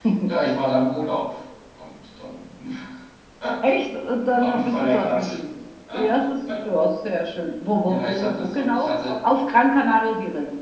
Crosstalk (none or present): present